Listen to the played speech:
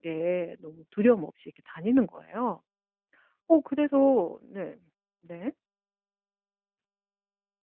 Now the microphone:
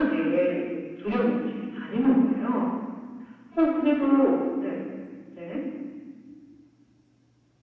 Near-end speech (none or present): none